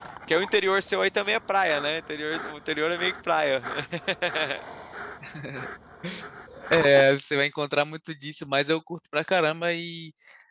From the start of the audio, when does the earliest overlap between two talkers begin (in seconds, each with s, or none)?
none